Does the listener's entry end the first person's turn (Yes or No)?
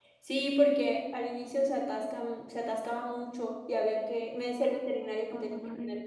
No